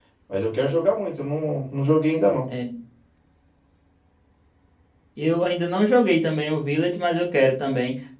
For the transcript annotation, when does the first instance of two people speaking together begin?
none

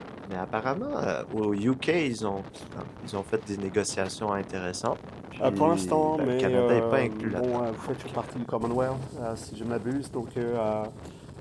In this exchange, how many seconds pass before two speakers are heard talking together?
5.4 s

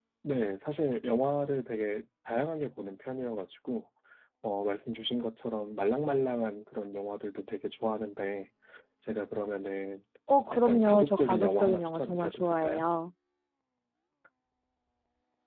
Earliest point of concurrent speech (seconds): 10.5 s

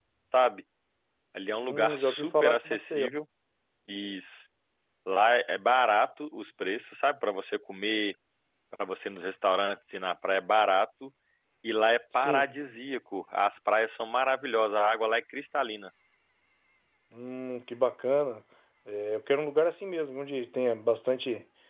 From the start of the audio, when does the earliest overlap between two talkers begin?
1.6 s

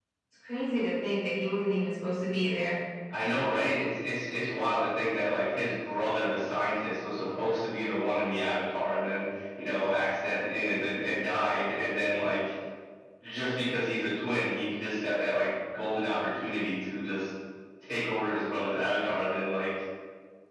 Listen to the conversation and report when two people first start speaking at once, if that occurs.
none

